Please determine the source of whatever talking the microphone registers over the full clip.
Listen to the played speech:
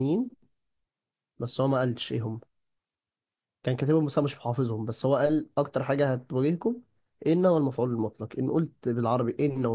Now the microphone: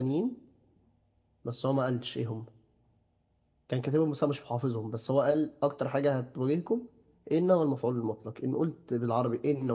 echo only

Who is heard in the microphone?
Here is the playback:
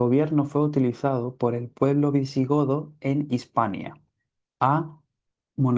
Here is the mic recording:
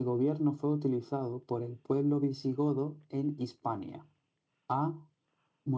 echo only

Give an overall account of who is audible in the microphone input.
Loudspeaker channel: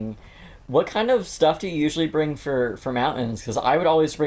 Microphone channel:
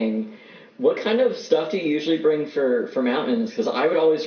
echo only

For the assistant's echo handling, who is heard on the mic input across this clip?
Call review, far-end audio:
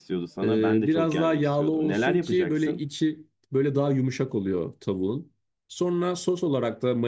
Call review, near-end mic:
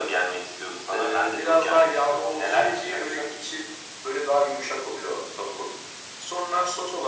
echo only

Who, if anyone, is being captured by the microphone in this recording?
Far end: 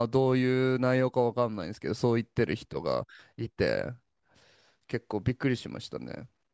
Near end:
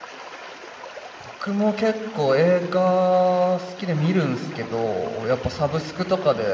user only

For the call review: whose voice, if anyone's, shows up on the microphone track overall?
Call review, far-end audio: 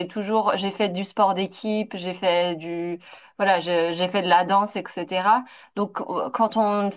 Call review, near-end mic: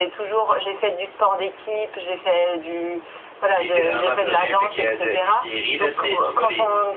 both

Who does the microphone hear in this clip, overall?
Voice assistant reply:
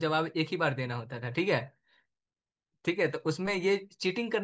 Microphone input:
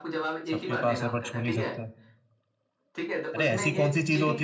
both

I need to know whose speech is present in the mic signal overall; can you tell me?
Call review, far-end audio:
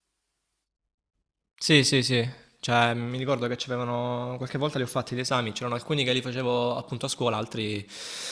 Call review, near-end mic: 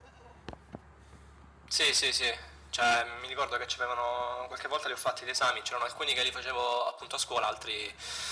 echo only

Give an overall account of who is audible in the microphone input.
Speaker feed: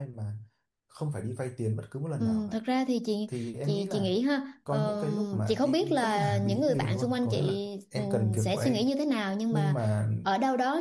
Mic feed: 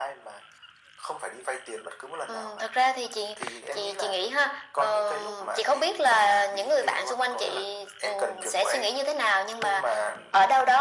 echo only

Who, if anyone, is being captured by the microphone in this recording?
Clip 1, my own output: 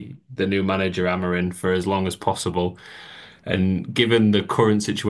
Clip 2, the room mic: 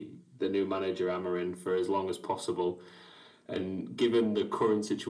echo only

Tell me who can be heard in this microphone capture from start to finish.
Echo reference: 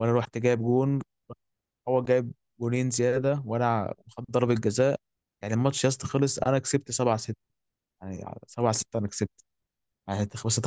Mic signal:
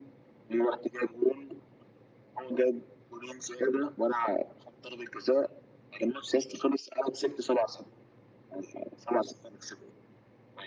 echo only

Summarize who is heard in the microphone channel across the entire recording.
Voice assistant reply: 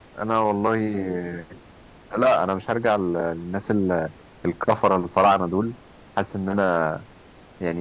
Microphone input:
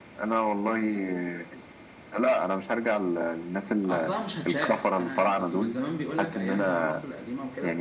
both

